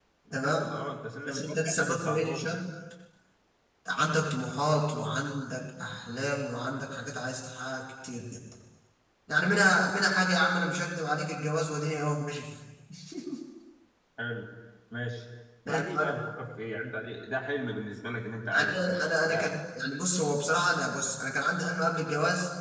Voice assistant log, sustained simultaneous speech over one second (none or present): present